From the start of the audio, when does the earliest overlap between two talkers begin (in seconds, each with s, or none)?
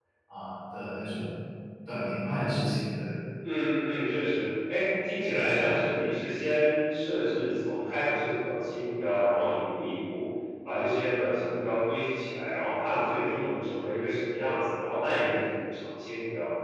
none